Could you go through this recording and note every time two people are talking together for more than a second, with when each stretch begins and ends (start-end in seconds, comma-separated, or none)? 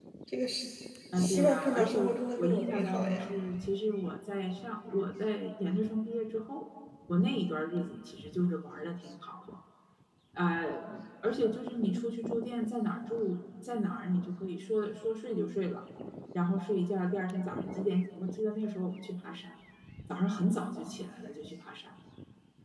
1.2-3.3